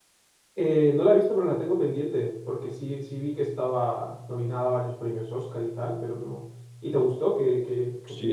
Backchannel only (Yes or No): No